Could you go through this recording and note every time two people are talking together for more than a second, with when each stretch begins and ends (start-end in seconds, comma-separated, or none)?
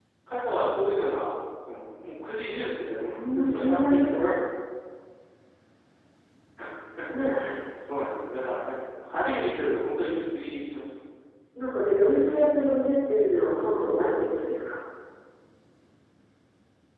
3.0-4.3